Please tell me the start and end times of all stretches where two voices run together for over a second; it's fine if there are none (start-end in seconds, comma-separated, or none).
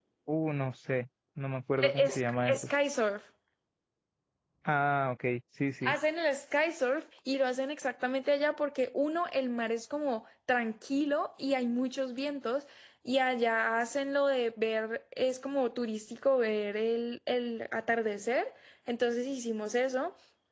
none